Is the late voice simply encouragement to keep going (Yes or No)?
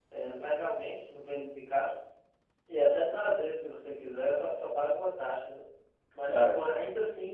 Yes